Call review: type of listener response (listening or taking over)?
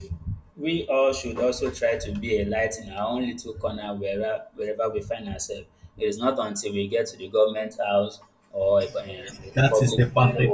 taking over